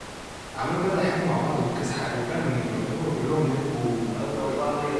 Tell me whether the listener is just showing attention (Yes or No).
No